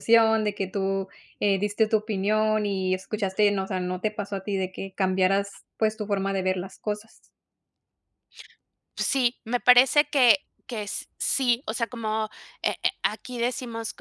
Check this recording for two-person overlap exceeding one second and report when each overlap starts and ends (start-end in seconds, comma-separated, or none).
none